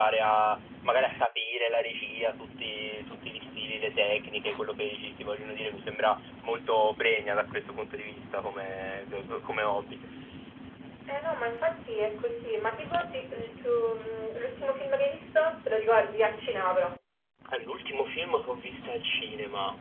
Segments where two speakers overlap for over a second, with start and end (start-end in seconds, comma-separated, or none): none